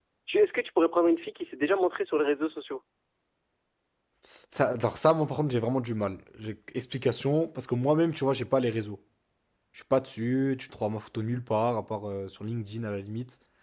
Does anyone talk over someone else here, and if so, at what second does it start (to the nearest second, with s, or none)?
none